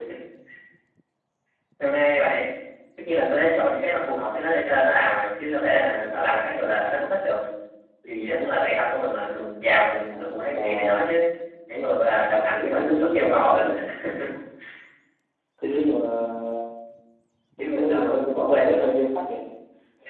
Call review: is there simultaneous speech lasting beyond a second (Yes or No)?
Yes